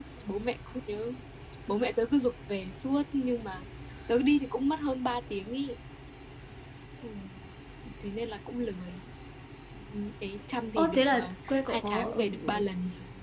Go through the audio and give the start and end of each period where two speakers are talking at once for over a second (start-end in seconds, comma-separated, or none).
10.8-12.6